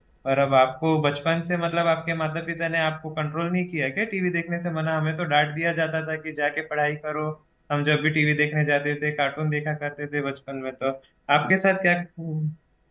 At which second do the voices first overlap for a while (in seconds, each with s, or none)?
none